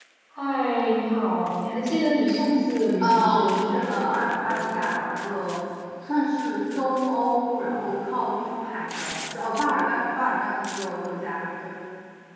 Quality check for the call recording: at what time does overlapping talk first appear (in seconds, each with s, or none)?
3.0 s